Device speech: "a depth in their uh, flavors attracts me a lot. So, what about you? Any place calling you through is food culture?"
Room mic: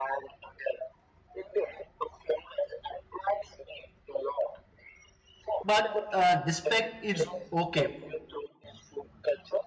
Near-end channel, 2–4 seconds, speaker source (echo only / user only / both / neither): echo only